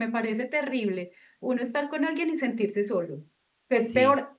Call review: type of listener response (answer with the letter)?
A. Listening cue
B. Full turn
A